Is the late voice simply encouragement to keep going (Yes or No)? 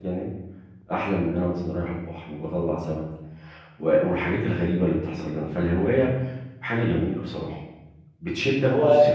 Yes